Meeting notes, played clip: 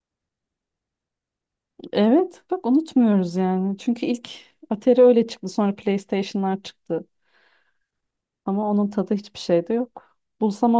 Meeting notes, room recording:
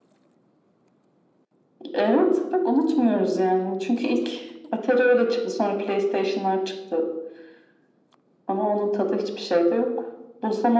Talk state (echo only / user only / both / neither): echo only